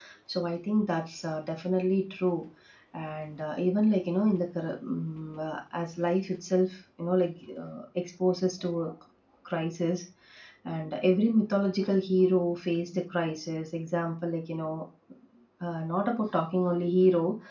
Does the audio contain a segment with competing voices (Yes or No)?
No